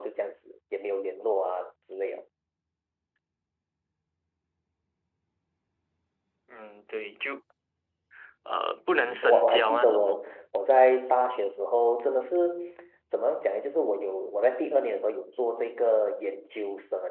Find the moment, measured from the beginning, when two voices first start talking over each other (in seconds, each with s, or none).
8.9 s